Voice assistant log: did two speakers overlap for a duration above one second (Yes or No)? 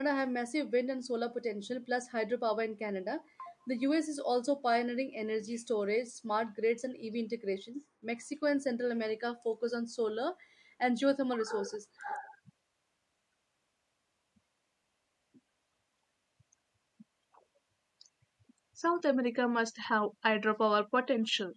No